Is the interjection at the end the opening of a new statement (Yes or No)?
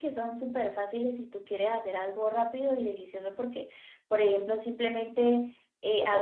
No